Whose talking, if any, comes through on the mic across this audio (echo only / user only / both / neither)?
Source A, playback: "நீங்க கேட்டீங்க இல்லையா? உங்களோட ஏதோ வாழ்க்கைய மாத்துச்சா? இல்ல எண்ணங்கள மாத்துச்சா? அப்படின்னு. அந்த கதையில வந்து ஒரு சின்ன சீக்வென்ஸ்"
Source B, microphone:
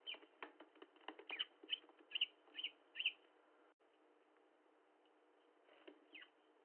neither